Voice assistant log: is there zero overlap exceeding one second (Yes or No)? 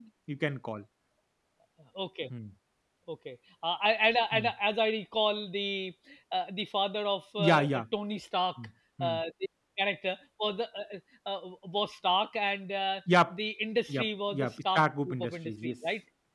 No